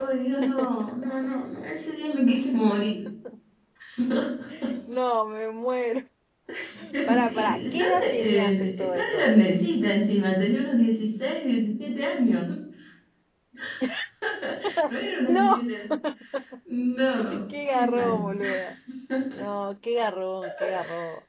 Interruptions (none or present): present